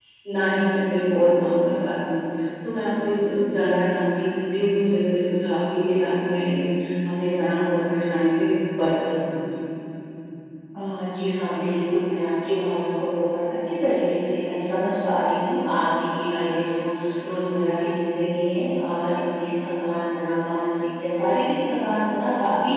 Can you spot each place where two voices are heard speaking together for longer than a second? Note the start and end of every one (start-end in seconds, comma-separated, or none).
none